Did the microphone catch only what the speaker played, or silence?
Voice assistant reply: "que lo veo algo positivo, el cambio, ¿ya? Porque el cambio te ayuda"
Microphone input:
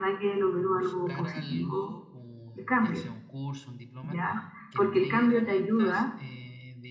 No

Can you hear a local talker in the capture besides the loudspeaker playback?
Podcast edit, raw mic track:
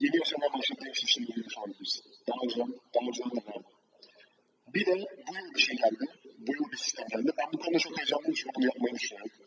No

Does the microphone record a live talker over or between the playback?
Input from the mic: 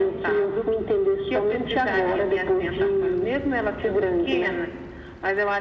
No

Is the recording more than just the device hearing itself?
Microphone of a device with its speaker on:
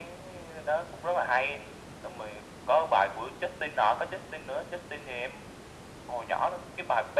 No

